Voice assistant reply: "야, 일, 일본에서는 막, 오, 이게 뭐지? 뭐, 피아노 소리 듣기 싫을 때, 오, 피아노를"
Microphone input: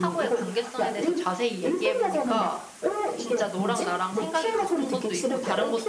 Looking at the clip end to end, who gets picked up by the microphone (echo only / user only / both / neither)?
both